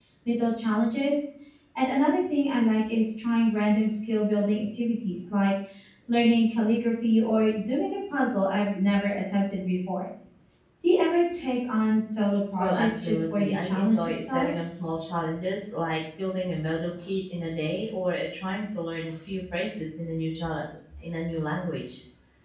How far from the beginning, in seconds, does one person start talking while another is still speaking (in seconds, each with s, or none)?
12.6 s